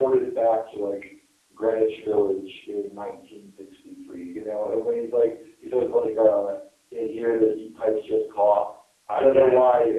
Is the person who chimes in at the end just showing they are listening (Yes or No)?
Yes